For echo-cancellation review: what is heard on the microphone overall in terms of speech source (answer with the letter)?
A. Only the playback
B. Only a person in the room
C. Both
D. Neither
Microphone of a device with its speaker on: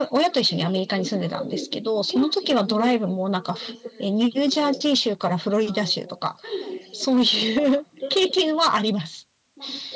C